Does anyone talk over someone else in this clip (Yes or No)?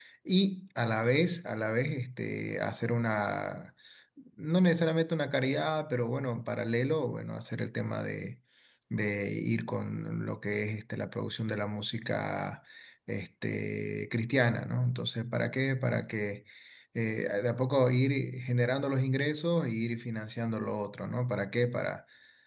No